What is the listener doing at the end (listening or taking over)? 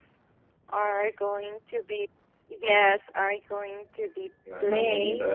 listening